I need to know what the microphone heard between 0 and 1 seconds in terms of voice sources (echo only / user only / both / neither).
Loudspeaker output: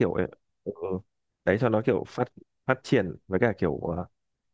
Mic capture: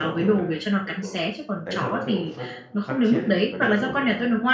both